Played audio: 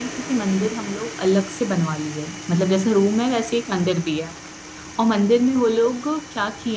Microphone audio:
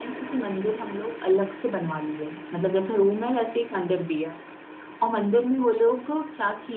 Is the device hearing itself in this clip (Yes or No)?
Yes